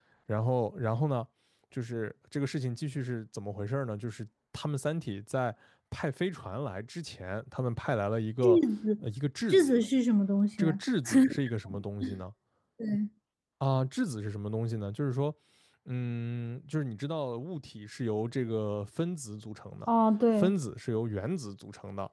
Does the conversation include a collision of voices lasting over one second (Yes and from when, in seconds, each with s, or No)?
No